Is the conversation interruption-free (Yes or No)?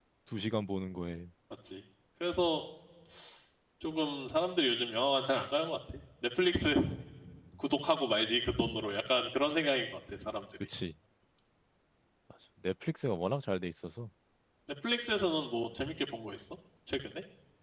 Yes